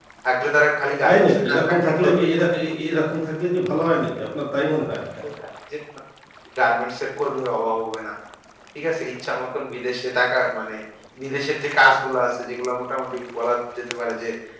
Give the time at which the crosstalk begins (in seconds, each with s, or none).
1.0 s